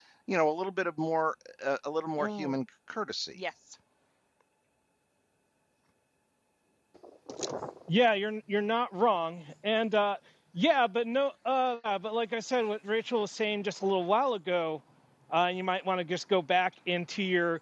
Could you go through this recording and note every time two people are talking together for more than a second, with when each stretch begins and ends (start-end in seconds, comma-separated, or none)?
none